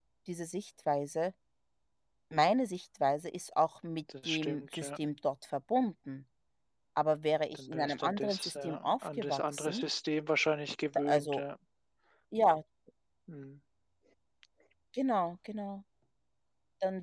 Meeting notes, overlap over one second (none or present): present